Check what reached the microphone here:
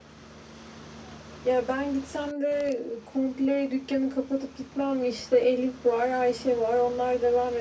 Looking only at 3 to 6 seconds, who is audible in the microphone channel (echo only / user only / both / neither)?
echo only